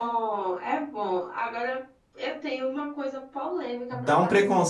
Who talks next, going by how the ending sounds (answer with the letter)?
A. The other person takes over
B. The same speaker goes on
A